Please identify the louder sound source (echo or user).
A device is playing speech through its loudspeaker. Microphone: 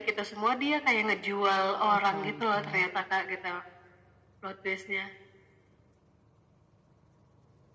echo